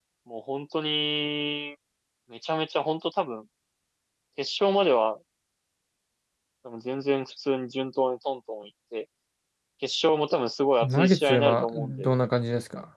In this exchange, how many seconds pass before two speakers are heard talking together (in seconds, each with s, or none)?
10.8 s